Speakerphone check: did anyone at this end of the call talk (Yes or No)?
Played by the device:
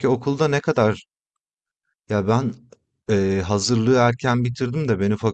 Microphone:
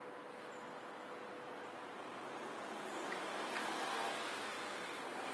No